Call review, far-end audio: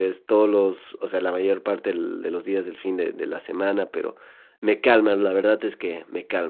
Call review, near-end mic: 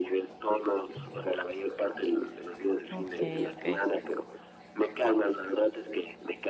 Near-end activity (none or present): present